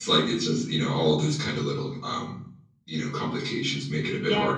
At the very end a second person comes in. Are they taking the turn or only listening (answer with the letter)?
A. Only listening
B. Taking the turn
B